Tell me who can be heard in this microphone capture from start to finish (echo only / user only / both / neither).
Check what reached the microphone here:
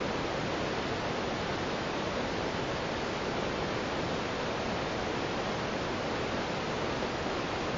neither